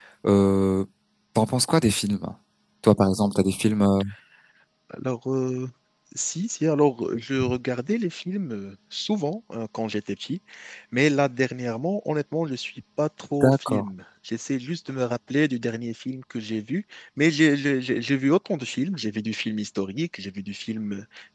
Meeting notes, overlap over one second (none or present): none